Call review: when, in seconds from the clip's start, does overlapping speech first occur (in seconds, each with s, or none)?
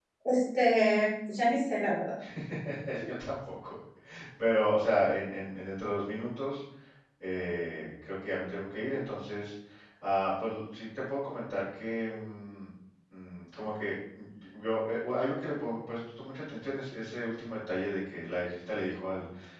none